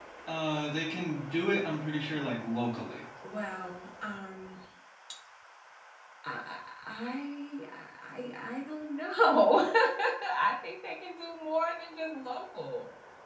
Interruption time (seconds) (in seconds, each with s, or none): none